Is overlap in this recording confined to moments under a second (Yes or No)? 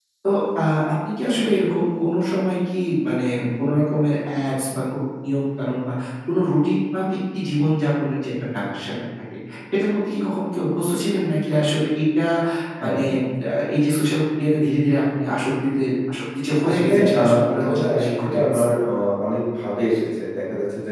No